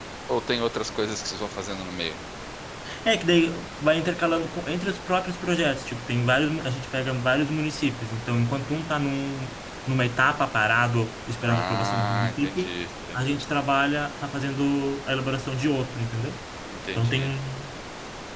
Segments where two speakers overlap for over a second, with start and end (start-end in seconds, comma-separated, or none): 11.4-12.7